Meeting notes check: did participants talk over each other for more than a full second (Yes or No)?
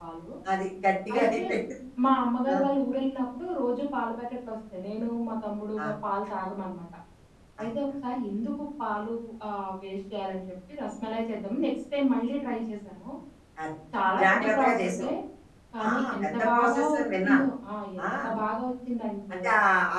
Yes